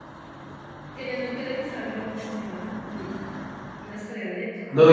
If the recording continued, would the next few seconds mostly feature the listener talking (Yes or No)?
Yes